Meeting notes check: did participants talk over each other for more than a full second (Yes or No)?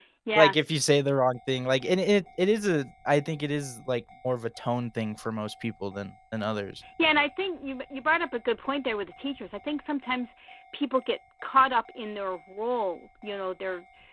No